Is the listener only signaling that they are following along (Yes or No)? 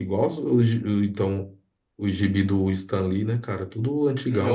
No